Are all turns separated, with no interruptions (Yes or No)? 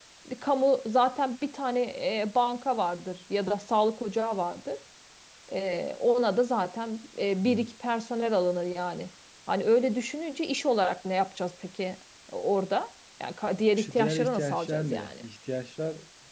No